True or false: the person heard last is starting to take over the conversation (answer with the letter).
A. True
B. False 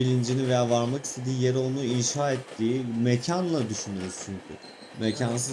B